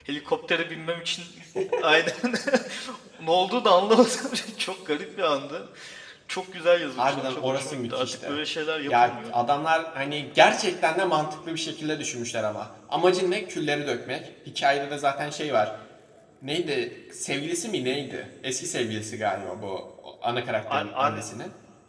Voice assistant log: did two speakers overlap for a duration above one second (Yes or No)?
Yes